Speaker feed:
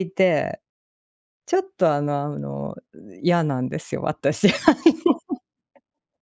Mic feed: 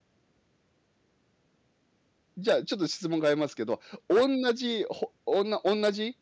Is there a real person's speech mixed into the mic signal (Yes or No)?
Yes